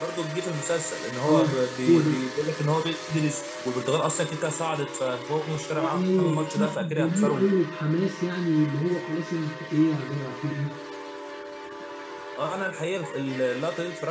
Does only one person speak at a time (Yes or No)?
No